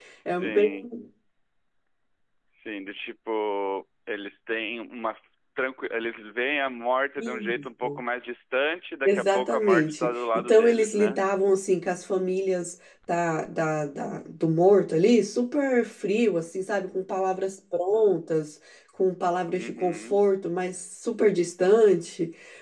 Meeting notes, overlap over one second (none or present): present